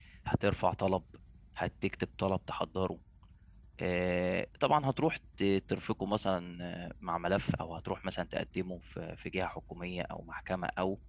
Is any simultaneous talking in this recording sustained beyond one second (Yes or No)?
No